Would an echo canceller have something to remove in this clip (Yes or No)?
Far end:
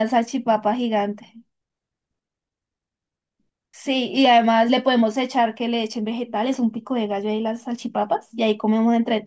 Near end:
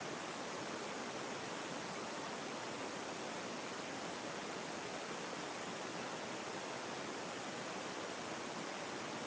No